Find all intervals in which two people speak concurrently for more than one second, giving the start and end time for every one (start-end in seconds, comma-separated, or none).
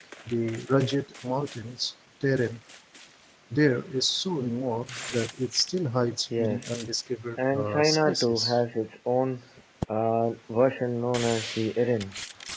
7.4-8.6